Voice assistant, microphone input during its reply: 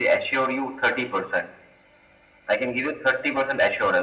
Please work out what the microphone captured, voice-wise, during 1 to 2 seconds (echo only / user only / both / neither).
echo only